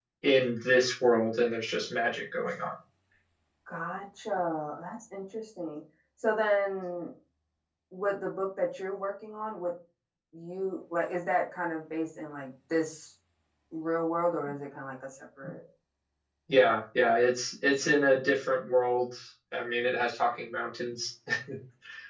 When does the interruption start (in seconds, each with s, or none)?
none